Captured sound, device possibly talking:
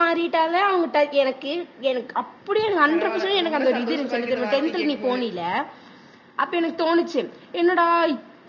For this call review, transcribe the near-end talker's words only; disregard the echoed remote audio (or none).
பரவால்ல ரொம்ப சந்தோஷமா இருக்கு இந்த வார்த்தைய கேட்கும் போது